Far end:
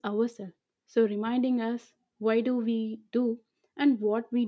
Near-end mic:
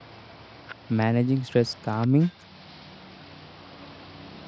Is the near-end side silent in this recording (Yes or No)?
No